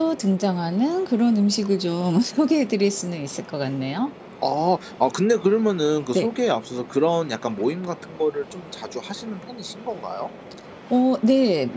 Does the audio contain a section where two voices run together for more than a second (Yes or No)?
No